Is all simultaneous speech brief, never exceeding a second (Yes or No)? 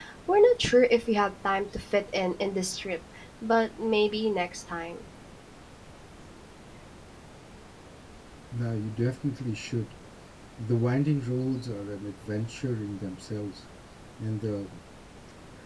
Yes